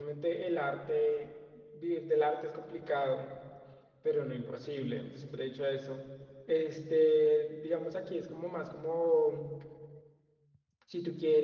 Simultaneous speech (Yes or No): No